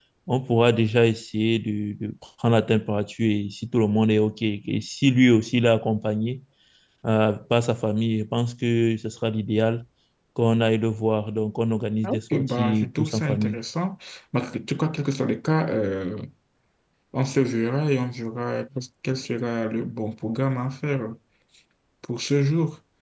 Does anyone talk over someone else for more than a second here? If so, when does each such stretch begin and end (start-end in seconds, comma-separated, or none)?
12.3-13.6